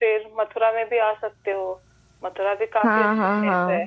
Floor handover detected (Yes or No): Yes